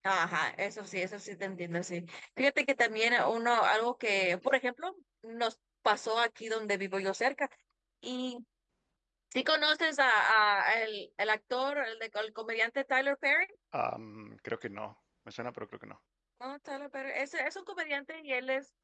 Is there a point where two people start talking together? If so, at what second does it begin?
none

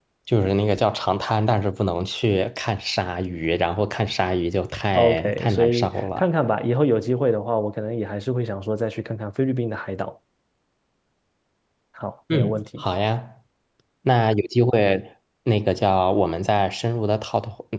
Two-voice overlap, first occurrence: 5 s

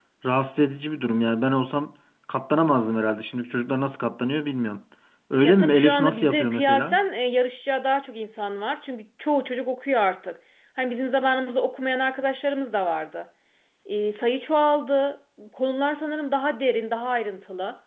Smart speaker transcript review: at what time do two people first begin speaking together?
5 s

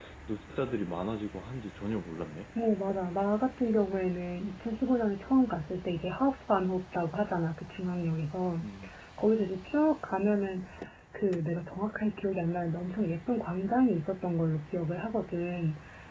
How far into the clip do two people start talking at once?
none

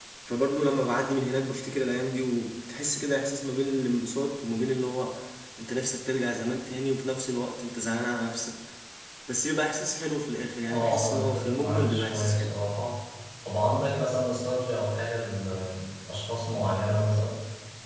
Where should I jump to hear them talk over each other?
11 s

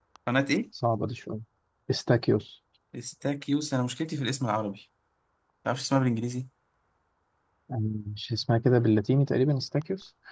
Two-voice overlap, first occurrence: none

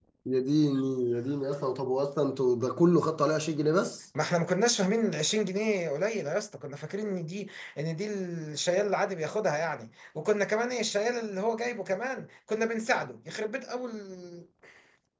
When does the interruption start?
none

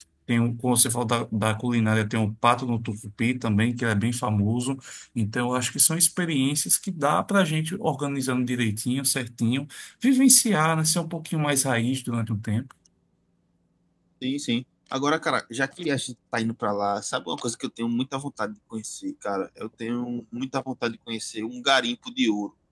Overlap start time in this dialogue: none

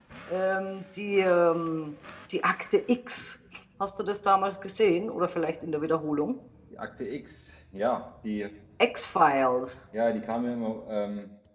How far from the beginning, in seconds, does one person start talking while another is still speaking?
none

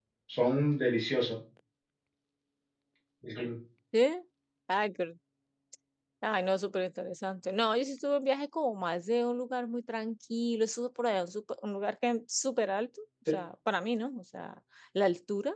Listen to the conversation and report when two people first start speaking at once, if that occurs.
none

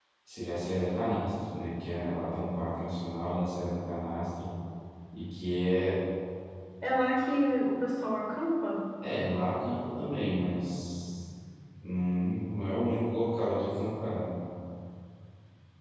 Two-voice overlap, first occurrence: none

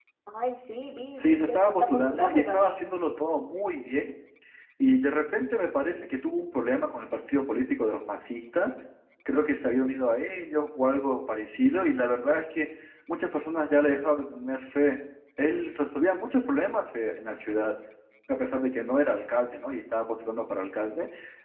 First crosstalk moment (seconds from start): 1 s

